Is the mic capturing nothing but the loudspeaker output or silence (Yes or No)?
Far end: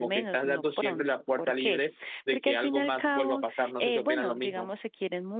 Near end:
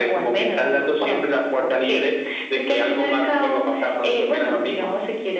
Yes